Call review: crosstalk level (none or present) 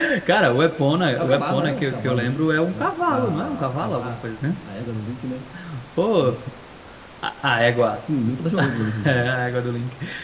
present